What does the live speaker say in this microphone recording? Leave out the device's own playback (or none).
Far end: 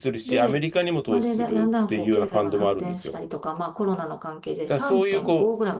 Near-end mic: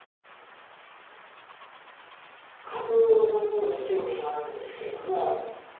株の方に興味があるんですけれども。